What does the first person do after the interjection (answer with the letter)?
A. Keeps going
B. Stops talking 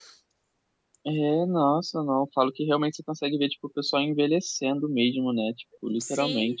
B